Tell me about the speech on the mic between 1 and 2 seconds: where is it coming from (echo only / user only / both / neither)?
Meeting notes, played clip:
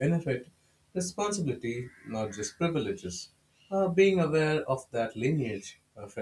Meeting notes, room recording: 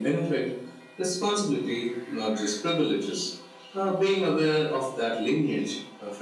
echo only